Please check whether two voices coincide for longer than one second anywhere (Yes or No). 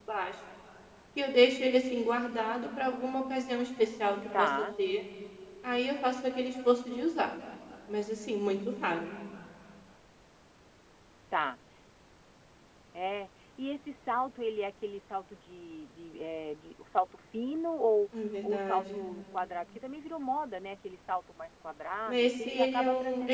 Yes